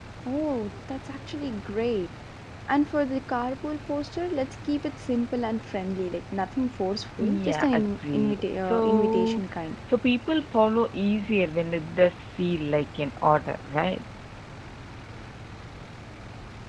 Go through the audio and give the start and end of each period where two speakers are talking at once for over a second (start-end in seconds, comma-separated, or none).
7.2-9.4